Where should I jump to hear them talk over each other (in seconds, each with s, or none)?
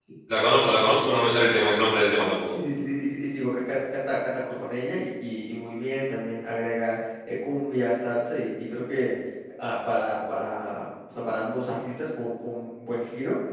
none